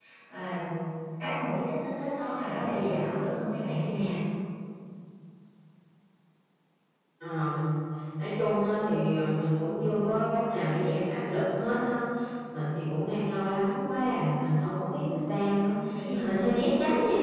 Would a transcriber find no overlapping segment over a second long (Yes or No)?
Yes